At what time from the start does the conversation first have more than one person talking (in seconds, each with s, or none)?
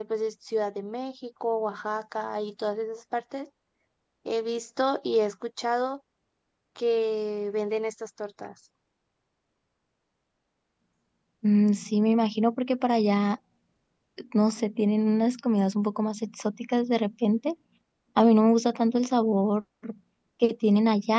none